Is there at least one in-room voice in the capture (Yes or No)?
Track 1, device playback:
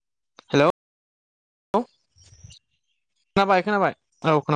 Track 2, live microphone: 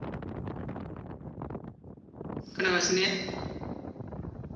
Yes